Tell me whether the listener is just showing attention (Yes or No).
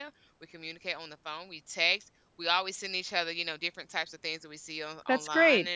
Yes